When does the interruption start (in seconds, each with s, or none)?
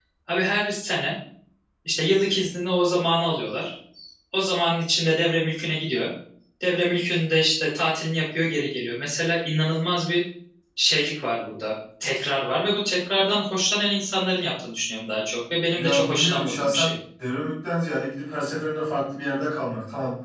15.7 s